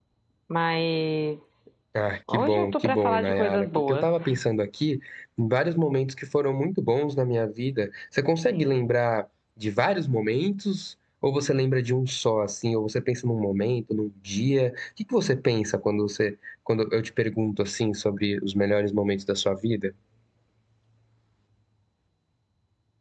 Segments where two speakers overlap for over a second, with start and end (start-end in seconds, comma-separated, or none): 2.3-4.1